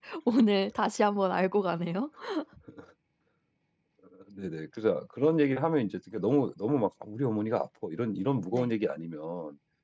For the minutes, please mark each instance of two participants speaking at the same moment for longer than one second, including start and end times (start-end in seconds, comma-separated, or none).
none